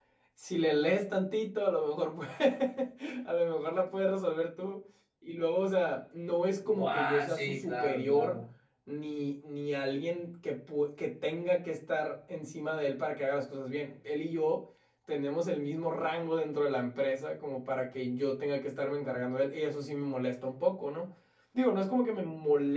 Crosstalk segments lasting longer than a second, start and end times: 6.6-8.4

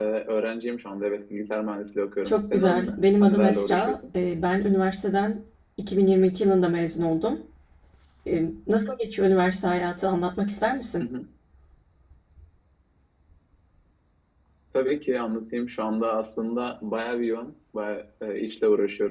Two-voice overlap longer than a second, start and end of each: 2.2-3.9

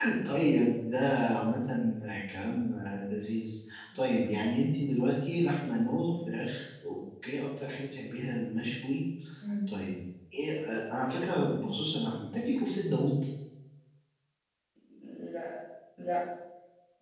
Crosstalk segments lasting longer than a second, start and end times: none

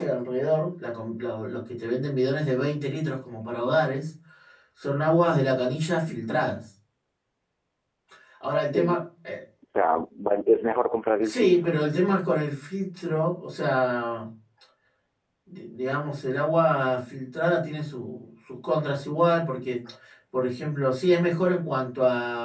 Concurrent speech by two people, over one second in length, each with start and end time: none

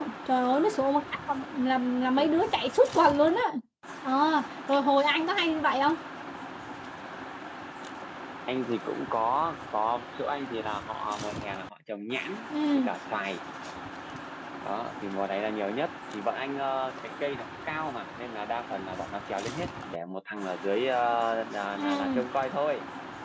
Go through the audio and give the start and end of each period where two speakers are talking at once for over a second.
none

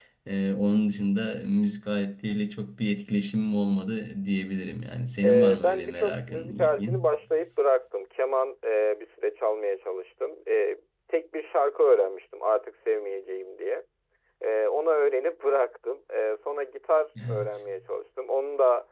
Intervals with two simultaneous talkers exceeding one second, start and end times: 5.2-7.0

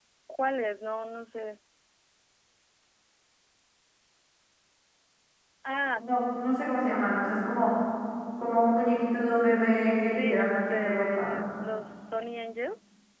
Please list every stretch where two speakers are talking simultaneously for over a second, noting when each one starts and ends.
10.1-11.4

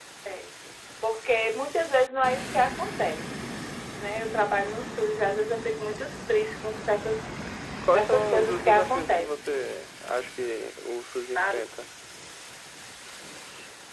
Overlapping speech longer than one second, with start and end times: 7.9-9.5

